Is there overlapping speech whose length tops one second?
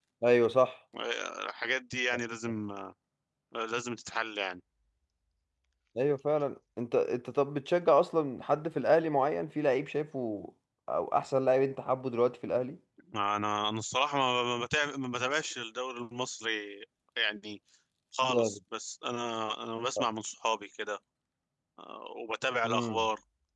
No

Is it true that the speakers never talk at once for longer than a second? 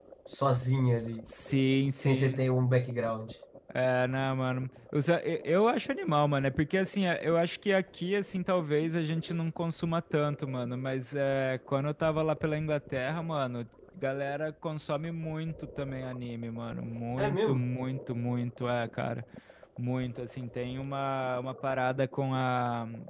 Yes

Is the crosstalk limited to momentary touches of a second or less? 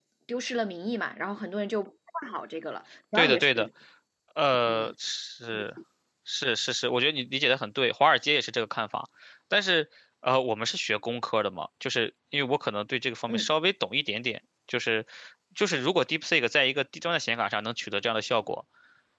Yes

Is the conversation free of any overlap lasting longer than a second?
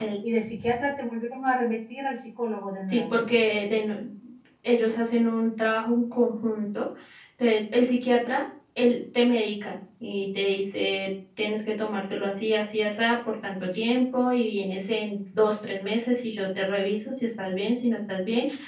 Yes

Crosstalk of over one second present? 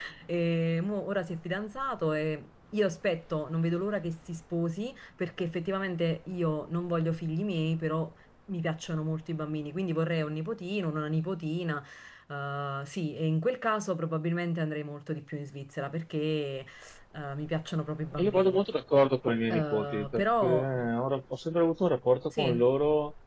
Yes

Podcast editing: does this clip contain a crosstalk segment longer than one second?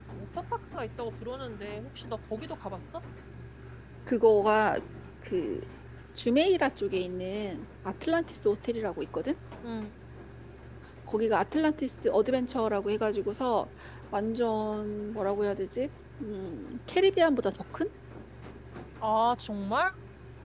No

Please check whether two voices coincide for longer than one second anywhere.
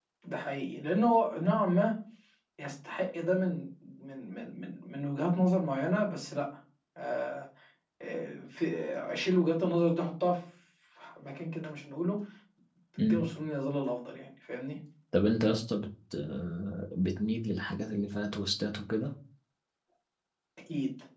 No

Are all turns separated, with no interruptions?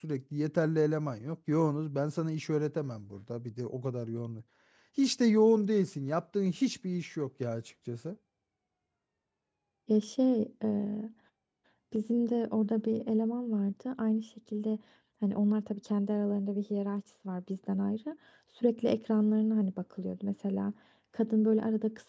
Yes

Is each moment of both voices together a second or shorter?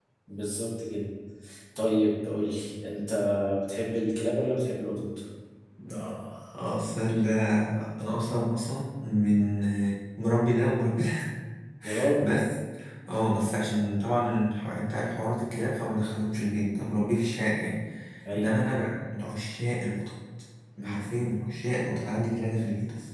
Yes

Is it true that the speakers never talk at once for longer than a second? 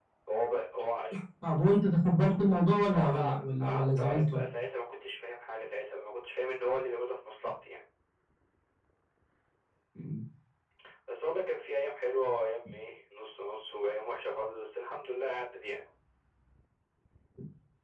No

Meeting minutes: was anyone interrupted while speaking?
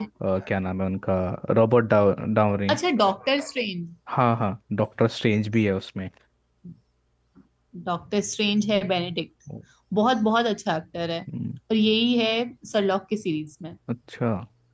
No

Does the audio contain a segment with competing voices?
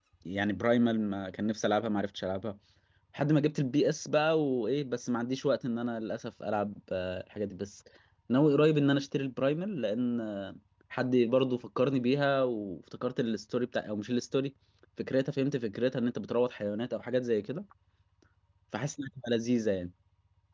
No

